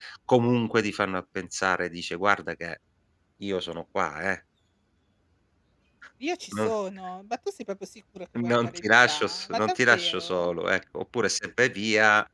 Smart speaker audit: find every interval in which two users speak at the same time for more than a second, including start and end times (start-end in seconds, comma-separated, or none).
8.3-10.5